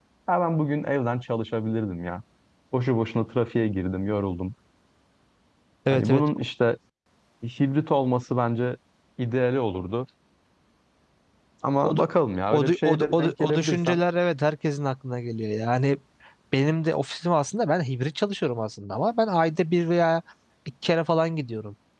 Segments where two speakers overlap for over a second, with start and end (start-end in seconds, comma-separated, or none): 12.5-14.0